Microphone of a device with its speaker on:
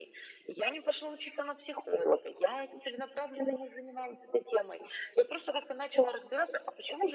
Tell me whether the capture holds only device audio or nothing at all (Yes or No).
Yes